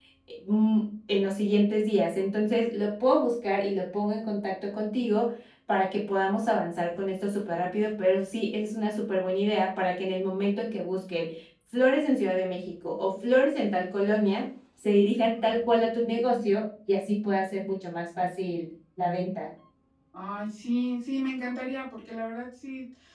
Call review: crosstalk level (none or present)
none